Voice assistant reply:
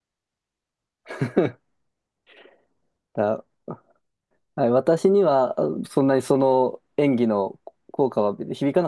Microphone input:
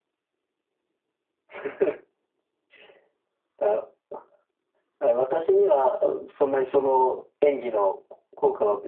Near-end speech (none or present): none